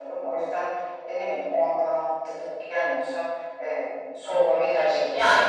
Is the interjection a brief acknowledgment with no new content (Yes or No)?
No